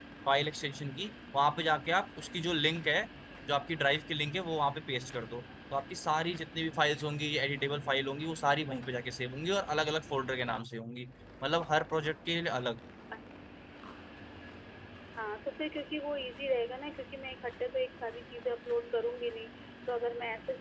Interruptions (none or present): none